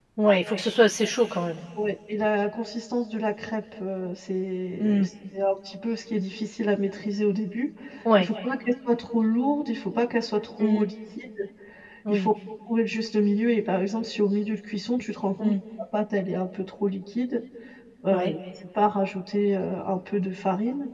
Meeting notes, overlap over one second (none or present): none